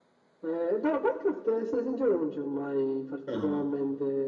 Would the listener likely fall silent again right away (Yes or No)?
Yes